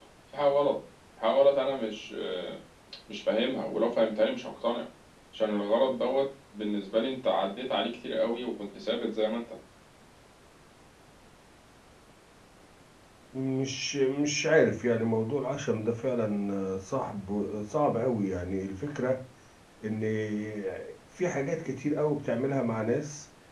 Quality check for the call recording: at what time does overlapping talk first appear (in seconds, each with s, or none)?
none